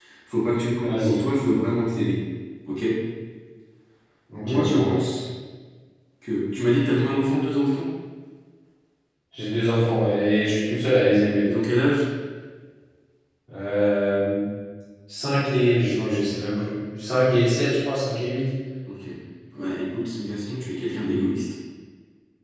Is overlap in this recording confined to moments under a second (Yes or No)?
Yes